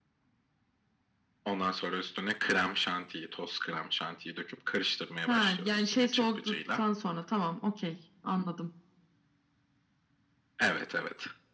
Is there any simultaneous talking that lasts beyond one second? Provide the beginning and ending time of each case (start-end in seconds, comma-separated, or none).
5.3-6.8